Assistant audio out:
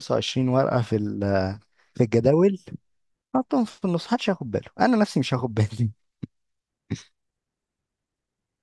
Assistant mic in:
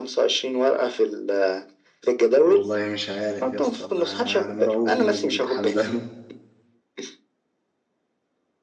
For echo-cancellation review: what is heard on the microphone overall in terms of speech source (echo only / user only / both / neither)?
both